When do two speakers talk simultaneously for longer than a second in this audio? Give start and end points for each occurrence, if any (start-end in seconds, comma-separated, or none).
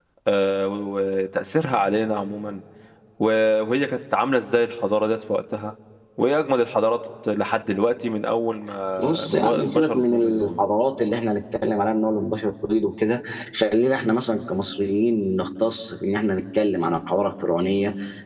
9.3-10.6